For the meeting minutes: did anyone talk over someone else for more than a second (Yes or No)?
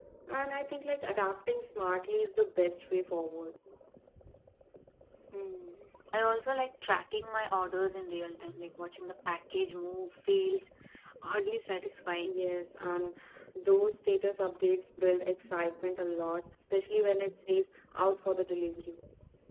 No